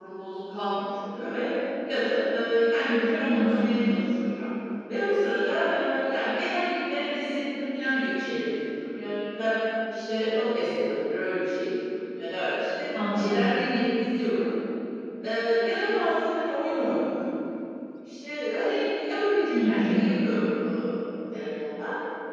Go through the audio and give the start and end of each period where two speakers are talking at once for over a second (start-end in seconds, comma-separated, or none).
none